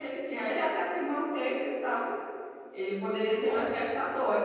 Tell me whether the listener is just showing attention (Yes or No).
Yes